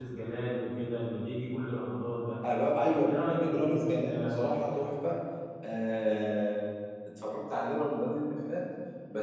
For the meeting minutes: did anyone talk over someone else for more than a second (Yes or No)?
Yes